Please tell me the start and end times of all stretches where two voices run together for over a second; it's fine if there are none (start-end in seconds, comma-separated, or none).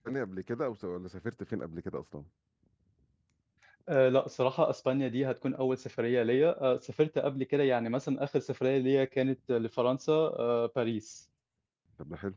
none